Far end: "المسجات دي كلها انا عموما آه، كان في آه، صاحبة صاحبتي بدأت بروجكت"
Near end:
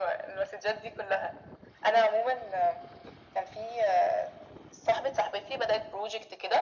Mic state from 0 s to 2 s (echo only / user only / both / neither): echo only